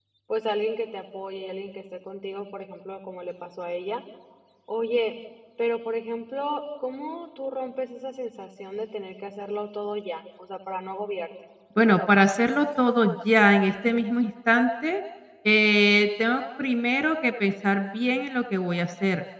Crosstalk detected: No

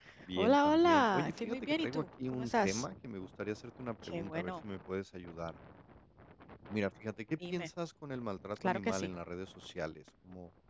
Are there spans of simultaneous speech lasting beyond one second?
Yes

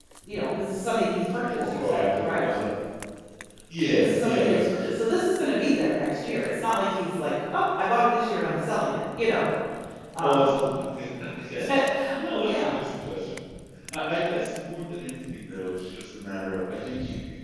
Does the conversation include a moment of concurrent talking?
Yes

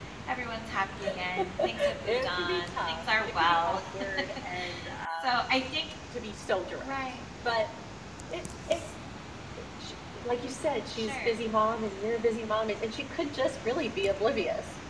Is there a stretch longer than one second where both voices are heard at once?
Yes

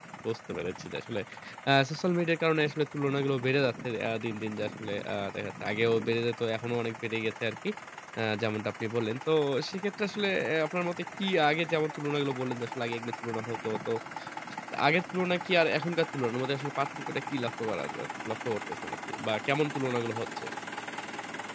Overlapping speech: No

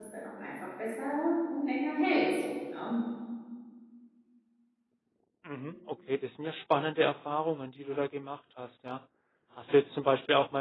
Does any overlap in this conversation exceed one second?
No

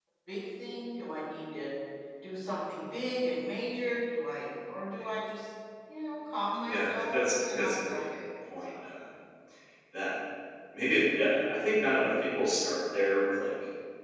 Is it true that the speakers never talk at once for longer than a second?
No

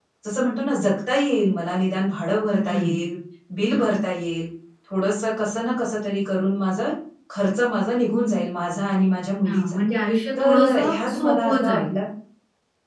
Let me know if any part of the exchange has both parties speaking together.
Yes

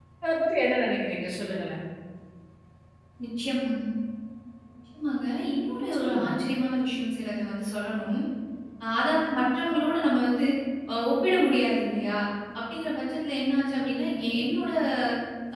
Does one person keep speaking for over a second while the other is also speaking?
No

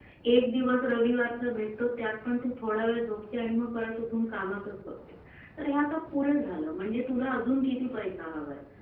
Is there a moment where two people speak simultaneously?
No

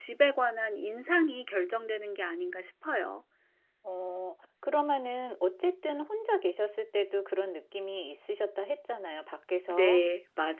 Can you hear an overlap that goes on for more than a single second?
No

